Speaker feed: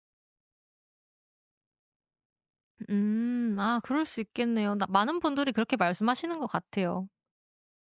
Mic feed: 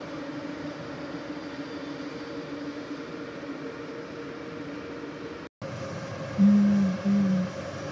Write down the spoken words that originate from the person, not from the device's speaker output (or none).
음. 음.